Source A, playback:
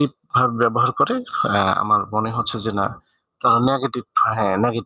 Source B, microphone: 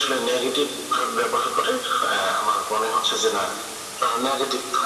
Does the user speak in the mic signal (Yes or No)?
No